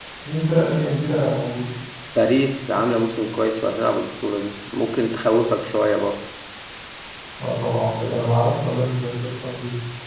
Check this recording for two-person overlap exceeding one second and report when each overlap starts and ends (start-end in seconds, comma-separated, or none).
none